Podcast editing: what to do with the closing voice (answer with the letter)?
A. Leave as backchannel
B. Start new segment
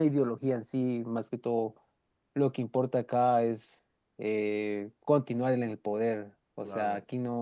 A